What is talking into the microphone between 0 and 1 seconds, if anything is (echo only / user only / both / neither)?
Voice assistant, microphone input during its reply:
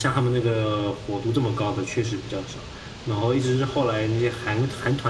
echo only